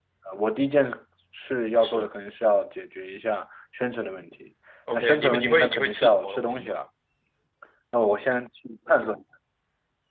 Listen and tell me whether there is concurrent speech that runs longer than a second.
Yes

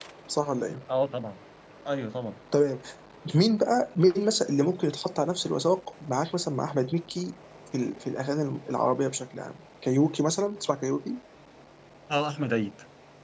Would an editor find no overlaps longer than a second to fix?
Yes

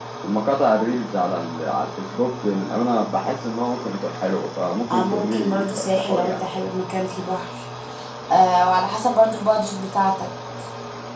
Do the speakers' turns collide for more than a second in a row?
Yes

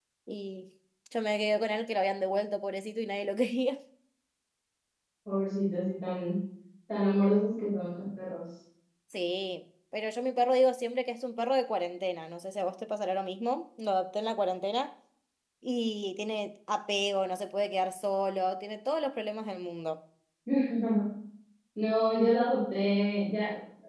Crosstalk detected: No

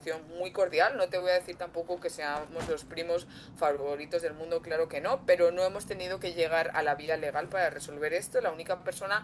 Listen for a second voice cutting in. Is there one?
No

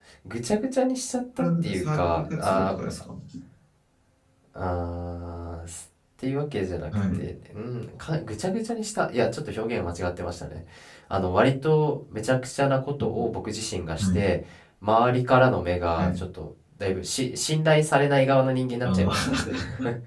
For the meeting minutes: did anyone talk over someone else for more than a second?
Yes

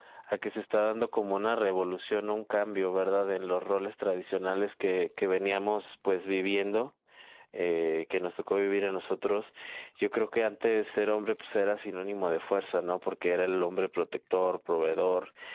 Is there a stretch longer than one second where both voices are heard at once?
No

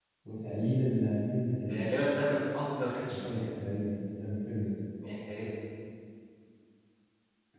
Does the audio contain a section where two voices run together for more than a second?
No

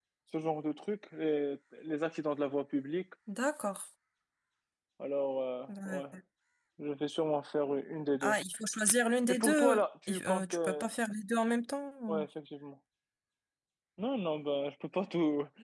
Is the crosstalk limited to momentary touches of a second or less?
No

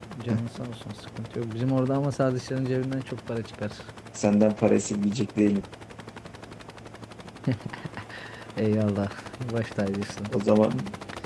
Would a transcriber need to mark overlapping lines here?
No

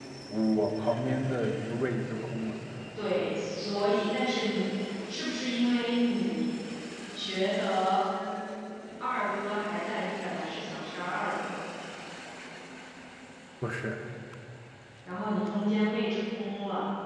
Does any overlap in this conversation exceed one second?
No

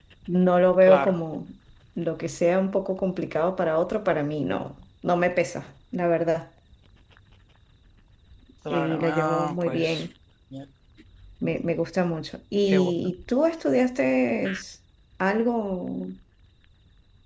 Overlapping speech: Yes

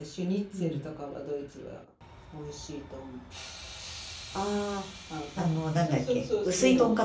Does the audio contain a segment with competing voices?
Yes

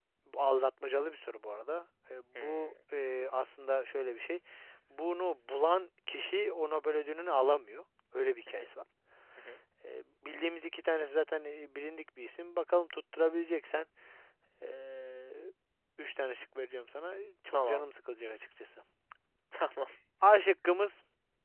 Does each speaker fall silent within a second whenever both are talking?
Yes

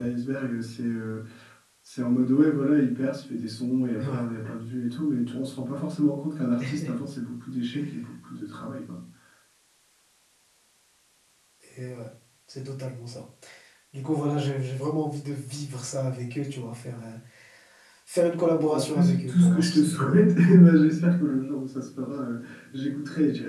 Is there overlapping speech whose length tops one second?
Yes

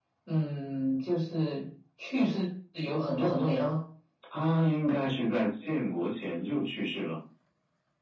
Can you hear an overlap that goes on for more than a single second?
No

